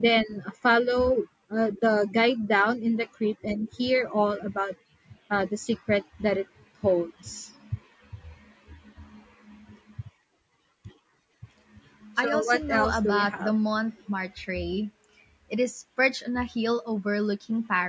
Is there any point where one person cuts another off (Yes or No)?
Yes